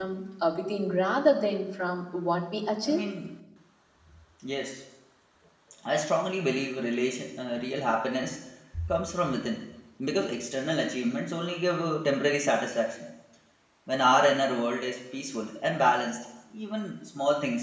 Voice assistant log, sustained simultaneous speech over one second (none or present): none